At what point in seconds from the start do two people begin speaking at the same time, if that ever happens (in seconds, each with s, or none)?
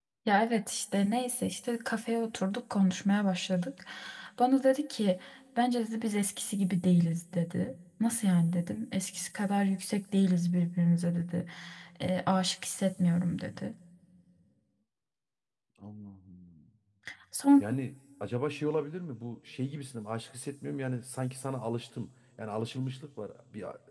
none